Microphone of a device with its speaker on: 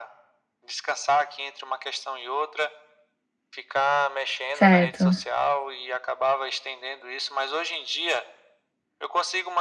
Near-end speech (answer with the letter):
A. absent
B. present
B